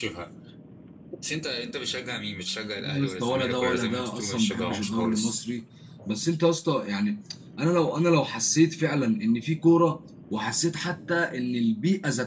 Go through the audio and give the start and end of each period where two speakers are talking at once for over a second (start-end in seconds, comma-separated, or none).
2.8-5.3